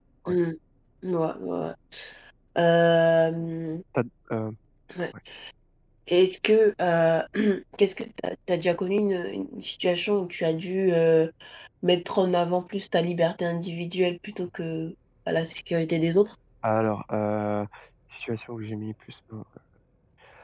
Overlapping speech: No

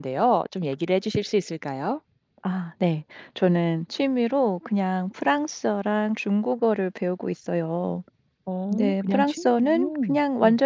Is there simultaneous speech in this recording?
Yes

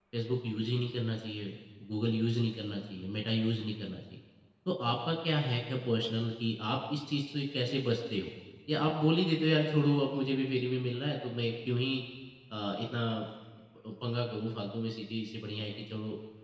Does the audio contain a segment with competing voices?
No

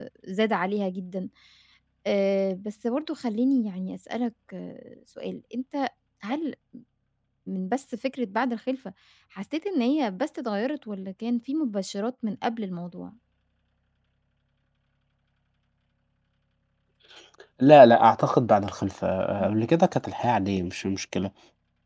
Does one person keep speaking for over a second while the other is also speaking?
No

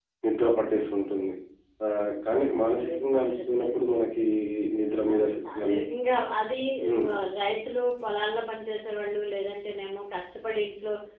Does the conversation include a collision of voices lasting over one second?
Yes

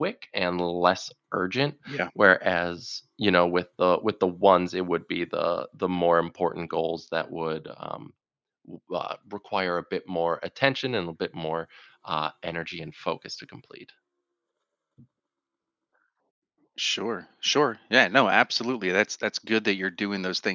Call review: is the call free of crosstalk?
Yes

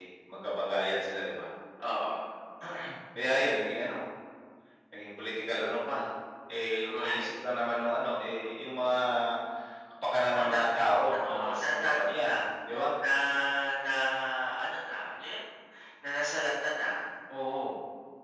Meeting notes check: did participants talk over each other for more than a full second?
Yes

